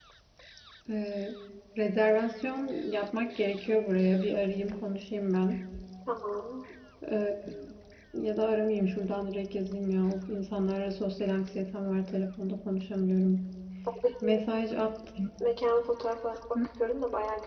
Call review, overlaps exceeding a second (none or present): none